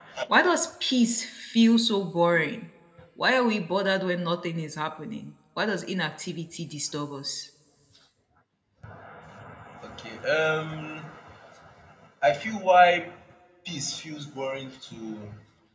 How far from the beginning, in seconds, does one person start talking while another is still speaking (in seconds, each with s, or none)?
none